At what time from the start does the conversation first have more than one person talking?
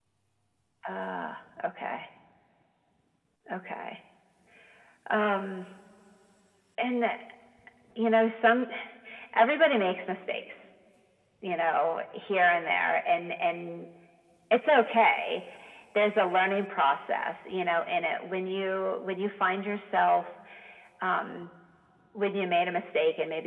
none

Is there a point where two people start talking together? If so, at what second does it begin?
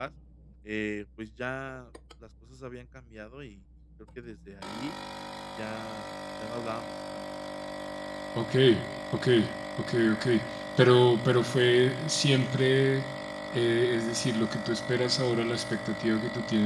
none

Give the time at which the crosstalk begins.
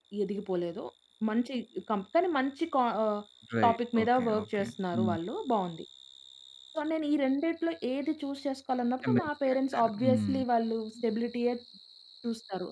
3.6 s

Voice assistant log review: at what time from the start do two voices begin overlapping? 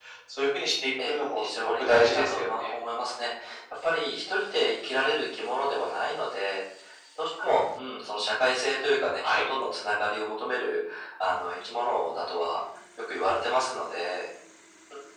1.0 s

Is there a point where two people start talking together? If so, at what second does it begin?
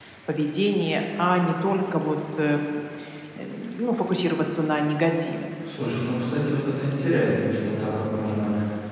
none

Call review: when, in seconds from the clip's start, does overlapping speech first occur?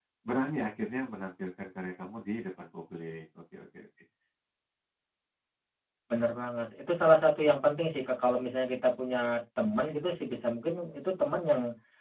none

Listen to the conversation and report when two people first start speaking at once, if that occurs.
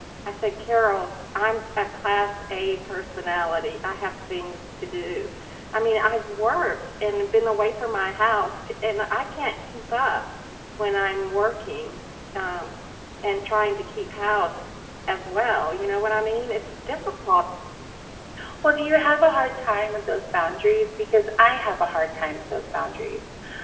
none

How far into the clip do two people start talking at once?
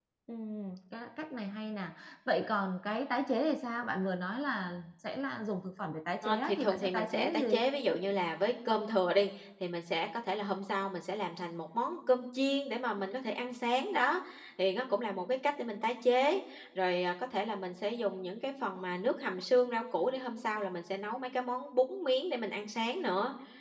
6.2 s

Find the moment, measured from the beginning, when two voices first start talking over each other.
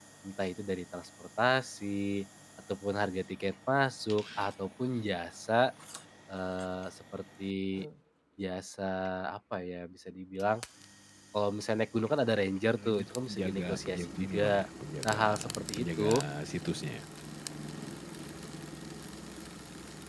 12.8 s

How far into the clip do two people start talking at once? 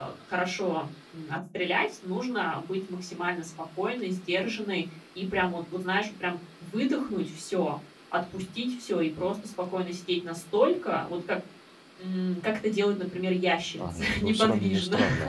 13.8 s

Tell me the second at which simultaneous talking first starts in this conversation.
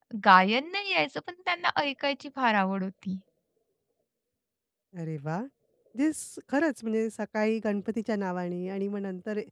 none

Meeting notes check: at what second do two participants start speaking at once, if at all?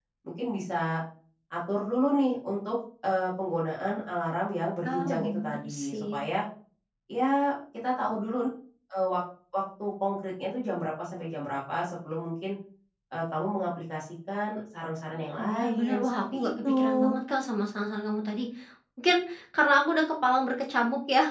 4.8 s

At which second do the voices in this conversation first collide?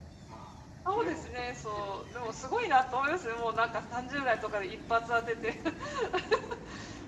0.9 s

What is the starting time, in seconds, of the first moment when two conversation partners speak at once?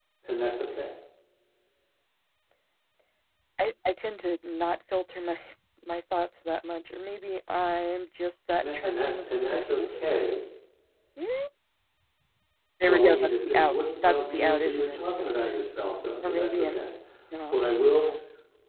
8.6 s

